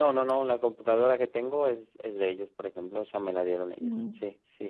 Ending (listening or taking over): listening